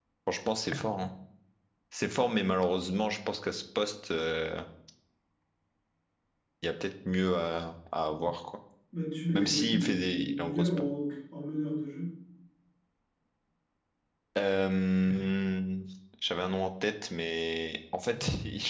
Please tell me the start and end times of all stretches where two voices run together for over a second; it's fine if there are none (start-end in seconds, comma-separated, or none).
9.3-10.7